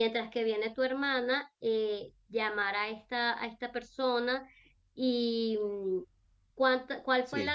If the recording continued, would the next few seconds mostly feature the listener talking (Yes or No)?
No